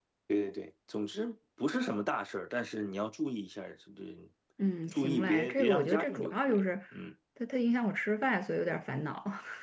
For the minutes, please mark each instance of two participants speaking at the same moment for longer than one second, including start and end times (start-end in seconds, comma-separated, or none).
4.9-6.6